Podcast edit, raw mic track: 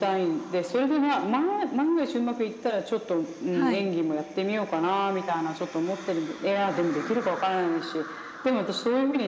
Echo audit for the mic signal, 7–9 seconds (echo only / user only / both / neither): echo only